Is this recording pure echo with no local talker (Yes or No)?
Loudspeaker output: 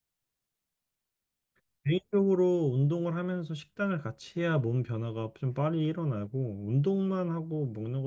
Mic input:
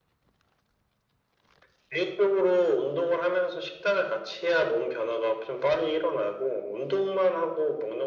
Yes